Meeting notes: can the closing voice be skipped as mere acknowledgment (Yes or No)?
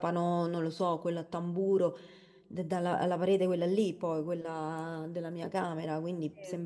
Yes